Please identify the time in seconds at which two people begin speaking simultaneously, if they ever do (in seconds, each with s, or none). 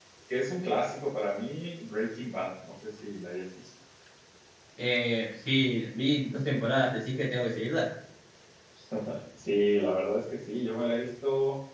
none